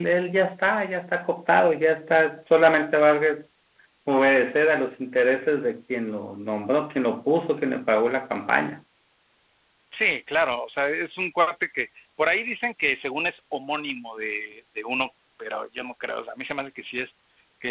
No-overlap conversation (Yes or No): Yes